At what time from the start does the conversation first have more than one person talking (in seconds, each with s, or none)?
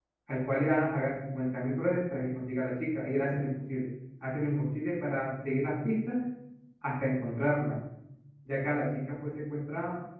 none